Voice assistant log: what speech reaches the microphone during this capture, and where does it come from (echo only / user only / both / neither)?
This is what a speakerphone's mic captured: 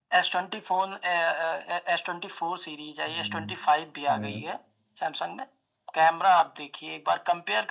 both